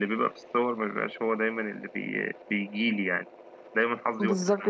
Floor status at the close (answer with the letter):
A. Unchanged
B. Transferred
B